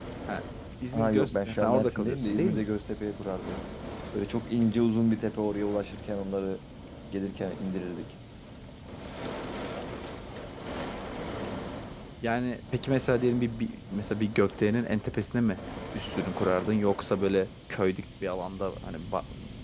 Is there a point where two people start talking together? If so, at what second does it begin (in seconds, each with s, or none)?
0.9 s